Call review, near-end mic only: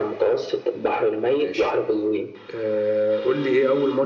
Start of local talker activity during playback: 1 s

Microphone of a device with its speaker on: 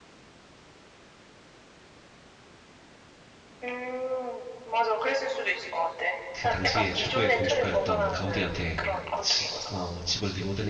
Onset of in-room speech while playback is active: 6 s

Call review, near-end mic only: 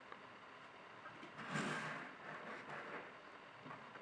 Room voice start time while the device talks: none

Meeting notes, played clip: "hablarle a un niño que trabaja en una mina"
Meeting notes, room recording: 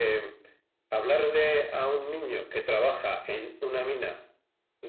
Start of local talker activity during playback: none

